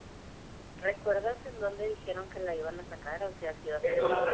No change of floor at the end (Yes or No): No